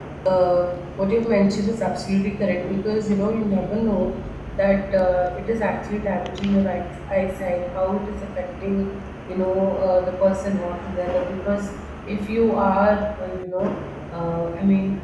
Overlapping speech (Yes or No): No